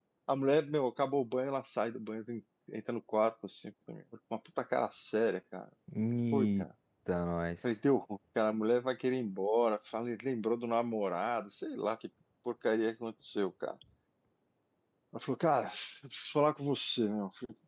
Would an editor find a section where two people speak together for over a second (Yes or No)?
No